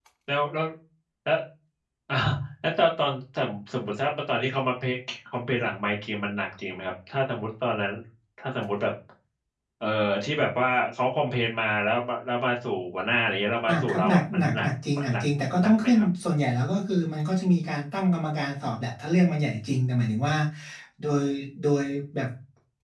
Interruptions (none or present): present